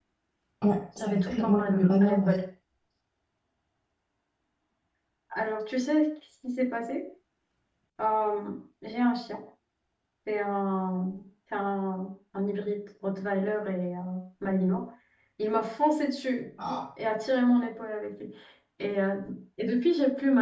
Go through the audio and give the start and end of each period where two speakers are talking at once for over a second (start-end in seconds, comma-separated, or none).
1.0-2.3